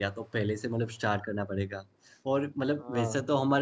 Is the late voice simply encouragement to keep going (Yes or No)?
Yes